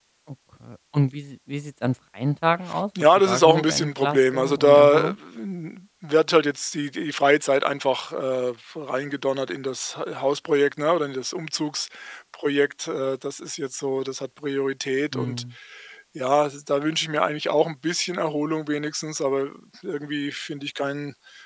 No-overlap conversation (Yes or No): No